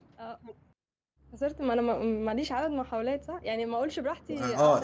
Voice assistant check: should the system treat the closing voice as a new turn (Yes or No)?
Yes